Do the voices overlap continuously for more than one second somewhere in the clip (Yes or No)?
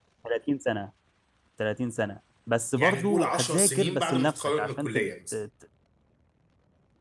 Yes